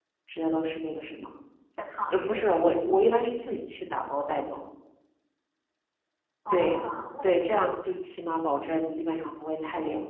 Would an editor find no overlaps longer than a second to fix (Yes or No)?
Yes